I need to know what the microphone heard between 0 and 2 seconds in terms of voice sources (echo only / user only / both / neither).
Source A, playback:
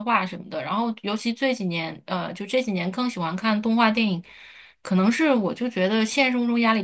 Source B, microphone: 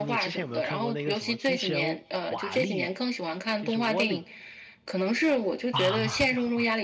both